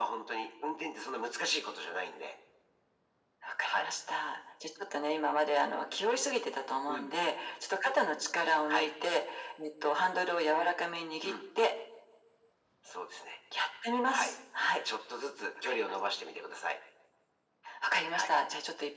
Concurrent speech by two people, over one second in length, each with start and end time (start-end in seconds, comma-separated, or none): none